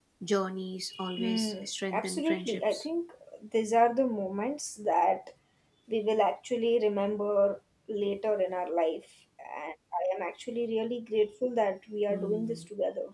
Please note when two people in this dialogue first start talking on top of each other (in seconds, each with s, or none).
1.2 s